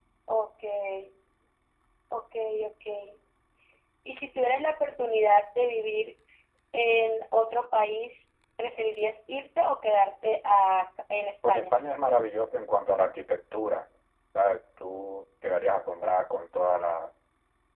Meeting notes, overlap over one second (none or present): none